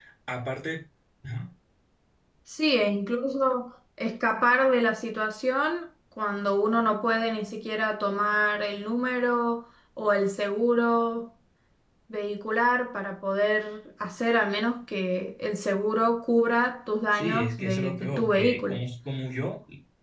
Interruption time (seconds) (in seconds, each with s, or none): 17.1 s